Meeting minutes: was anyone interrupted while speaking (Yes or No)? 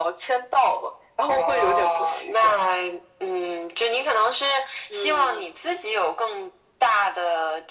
Yes